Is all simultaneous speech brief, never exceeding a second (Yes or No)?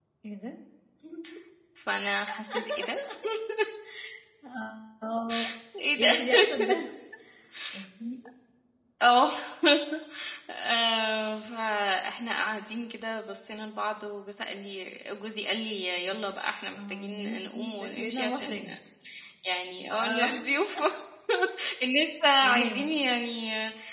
No